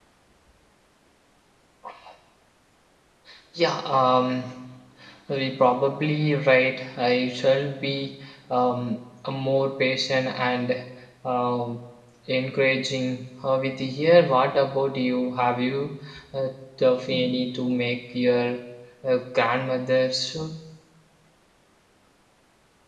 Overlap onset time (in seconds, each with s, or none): none